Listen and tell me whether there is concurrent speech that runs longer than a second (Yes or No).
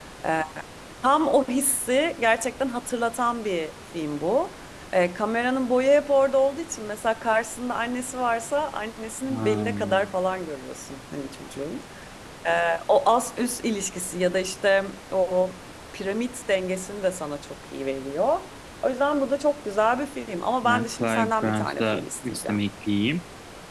Yes